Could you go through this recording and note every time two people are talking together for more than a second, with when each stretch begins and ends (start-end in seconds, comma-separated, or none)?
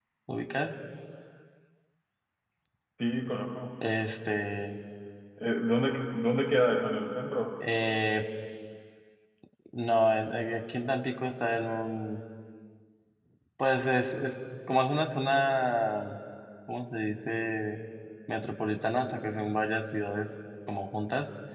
none